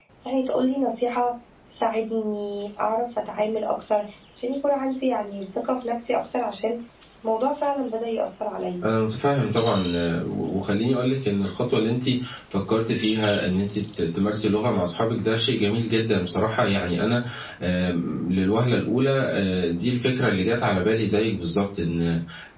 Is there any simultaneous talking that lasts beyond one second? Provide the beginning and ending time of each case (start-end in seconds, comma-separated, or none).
none